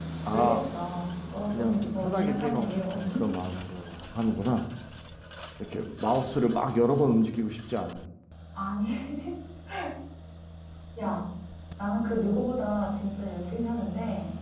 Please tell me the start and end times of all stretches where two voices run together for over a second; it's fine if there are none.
1.5-3.3

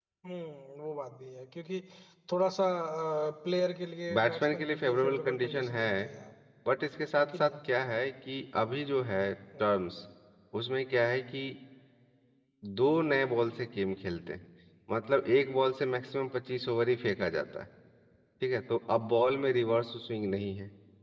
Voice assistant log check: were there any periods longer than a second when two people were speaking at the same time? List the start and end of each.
4.2-6.1

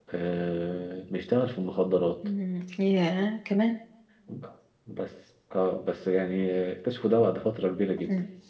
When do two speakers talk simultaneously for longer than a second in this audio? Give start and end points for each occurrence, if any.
none

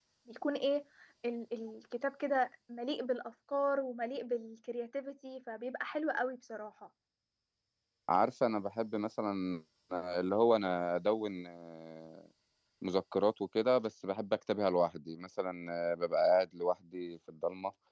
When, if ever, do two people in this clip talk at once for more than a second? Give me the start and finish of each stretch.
none

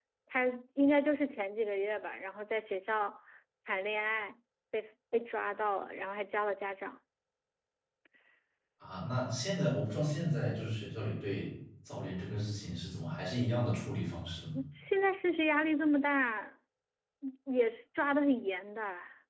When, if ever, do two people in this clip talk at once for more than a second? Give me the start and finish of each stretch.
none

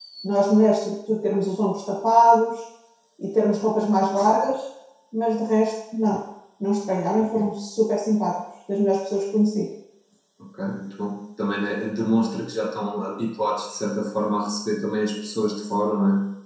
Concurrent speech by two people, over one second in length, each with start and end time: none

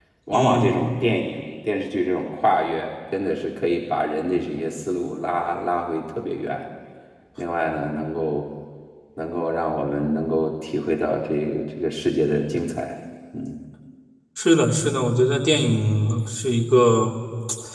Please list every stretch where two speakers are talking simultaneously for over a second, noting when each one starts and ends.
none

